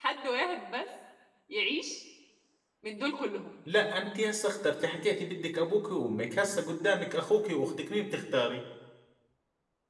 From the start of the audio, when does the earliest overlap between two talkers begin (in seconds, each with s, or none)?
none